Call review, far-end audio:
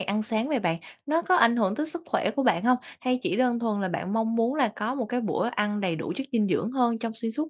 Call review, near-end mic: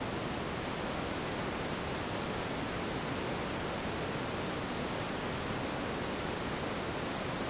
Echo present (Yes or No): No